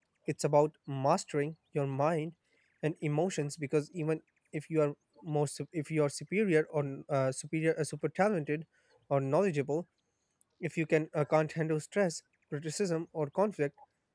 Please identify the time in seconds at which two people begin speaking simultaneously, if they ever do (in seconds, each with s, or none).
none